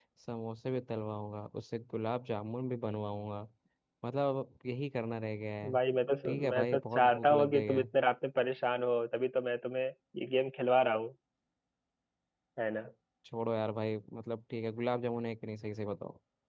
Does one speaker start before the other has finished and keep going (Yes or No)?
Yes